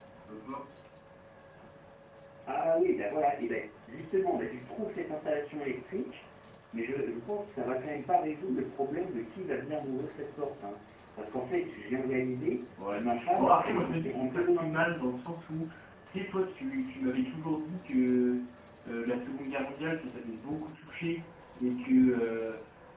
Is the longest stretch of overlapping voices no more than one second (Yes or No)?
No